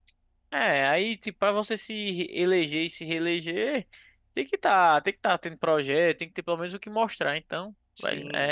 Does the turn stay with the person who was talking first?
No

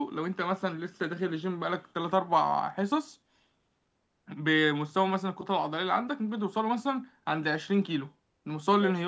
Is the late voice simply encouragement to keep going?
Yes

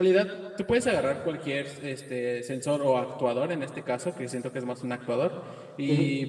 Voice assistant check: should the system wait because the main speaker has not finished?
Yes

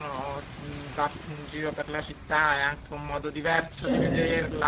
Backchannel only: Yes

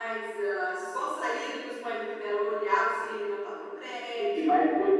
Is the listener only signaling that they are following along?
No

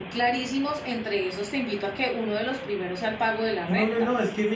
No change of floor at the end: No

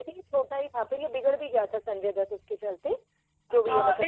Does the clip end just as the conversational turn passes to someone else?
Yes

